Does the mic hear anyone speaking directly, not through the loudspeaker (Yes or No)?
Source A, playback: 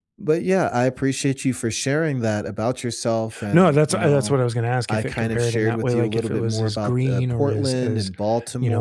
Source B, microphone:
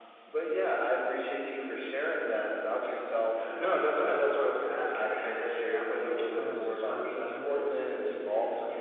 Yes